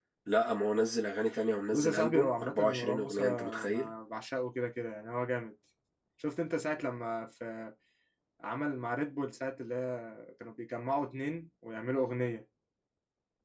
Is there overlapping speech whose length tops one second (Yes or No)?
Yes